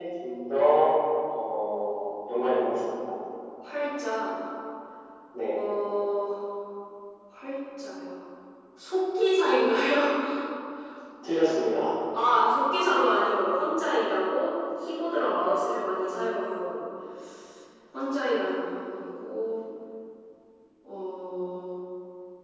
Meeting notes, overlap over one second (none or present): none